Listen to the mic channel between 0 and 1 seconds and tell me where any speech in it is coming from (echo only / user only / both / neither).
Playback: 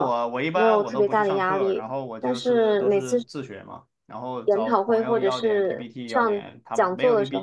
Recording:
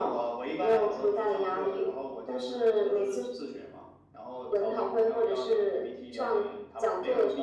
echo only